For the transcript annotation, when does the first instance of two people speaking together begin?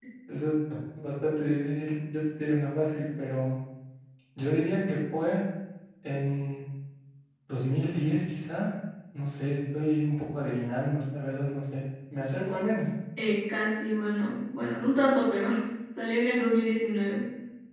none

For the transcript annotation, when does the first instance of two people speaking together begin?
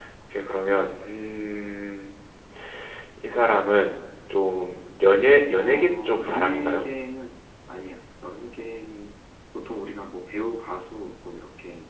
5.6 s

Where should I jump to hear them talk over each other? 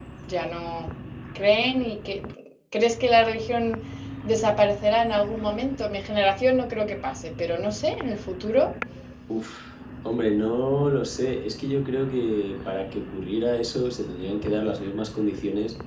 none

